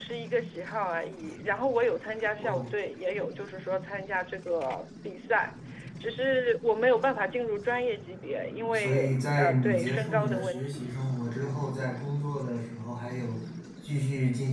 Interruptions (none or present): present